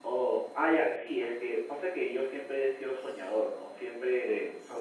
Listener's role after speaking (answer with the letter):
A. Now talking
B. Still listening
B